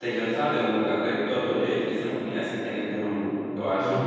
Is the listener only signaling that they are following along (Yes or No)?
No